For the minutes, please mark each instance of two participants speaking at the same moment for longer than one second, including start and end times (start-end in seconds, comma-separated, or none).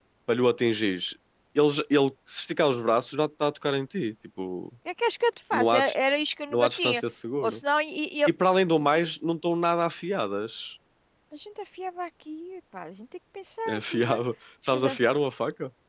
none